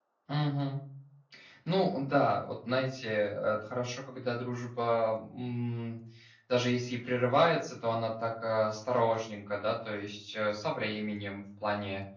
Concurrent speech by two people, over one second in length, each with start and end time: none

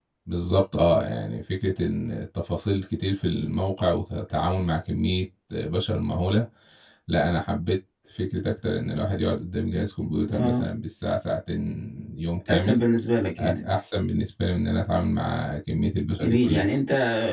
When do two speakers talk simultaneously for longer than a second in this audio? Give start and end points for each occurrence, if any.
none

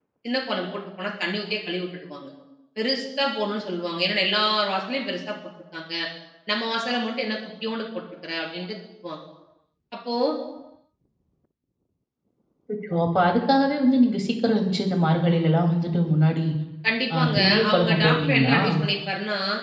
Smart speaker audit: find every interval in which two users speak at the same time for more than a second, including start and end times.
17.1-18.6

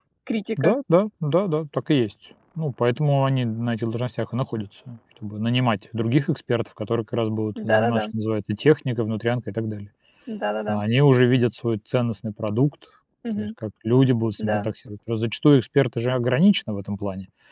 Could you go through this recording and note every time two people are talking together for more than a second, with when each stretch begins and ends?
none

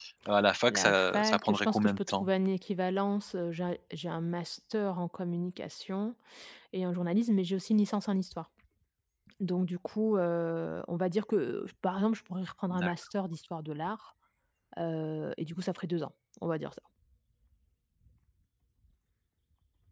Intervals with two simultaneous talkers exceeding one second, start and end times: 0.7-2.3

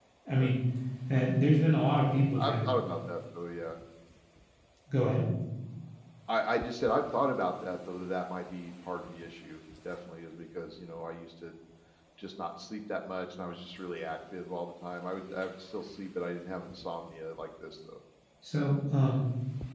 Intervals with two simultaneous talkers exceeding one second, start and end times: none

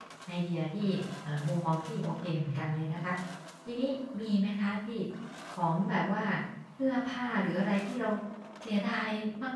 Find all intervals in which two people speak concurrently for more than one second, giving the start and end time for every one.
none

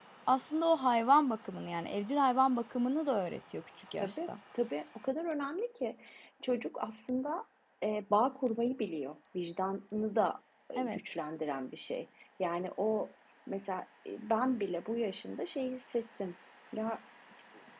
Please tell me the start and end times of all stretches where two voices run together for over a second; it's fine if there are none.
none

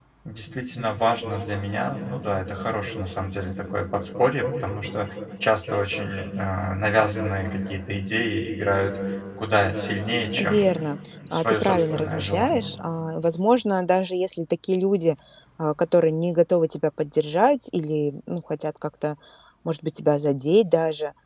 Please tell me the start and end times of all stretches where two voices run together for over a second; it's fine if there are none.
11.3-12.7

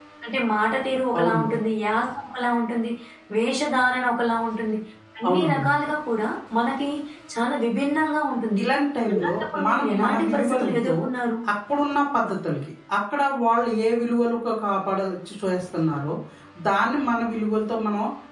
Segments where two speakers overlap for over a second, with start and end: 9.1-10.9

